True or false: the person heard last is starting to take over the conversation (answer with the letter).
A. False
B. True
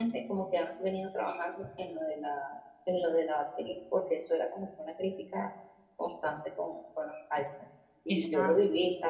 A